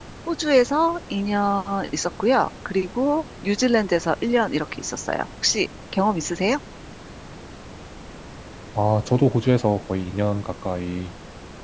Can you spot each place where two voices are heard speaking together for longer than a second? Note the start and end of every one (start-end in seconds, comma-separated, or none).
none